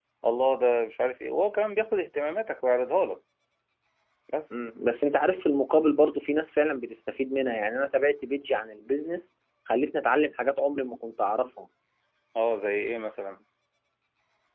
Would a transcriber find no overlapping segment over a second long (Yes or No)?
Yes